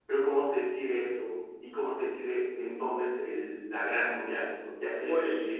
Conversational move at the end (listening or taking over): taking over